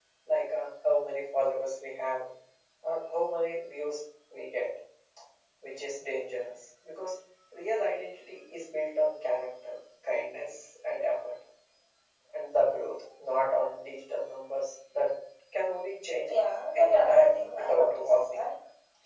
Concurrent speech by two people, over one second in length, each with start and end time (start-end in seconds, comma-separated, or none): 16.8-18.5